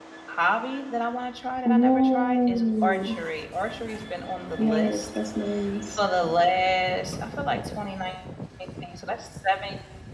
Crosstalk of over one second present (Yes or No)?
Yes